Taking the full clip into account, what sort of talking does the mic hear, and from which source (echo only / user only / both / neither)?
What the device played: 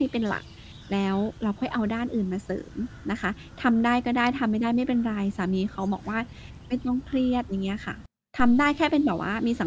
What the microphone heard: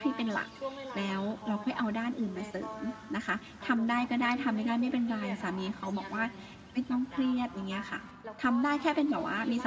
both